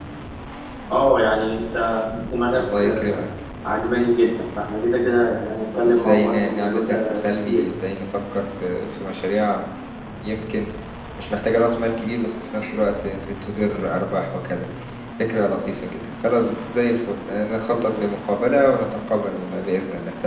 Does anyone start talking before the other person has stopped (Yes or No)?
Yes